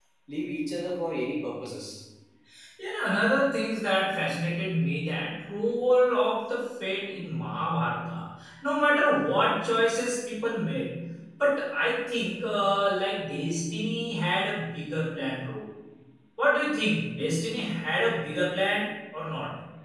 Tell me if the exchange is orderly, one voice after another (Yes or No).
Yes